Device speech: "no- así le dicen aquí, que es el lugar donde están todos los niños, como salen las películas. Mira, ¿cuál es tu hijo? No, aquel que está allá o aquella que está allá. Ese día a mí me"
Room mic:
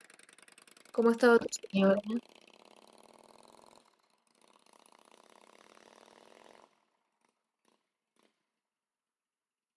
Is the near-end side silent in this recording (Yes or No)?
No